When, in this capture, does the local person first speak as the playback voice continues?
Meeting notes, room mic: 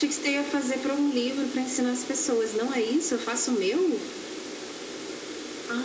none

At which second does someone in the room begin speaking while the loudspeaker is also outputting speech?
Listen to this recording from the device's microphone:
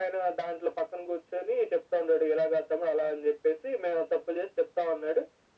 none

